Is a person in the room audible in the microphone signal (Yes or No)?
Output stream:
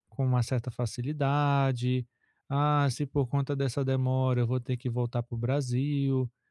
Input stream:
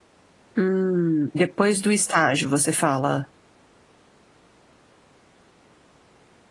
Yes